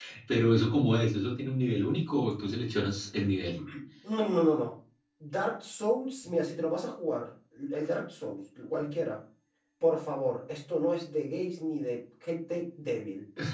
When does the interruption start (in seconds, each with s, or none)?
none